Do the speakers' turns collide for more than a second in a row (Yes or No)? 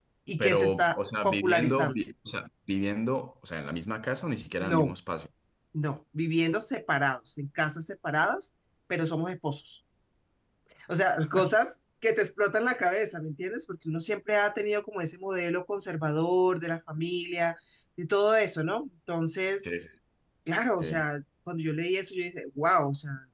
Yes